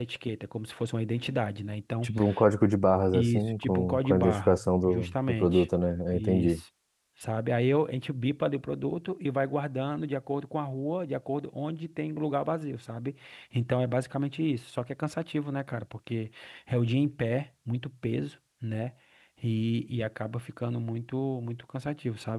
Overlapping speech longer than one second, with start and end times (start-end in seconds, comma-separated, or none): 3.1-5.7